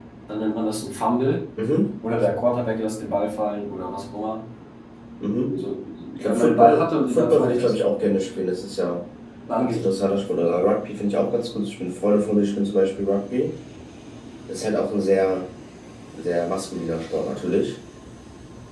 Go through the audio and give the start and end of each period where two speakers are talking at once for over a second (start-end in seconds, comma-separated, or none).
6.2-7.8